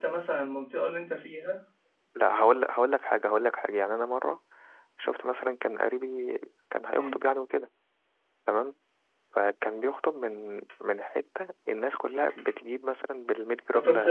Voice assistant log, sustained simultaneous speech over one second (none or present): none